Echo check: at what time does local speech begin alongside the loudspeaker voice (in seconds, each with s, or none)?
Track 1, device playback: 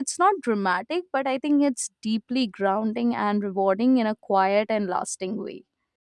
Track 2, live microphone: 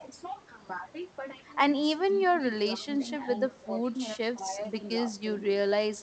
1.6 s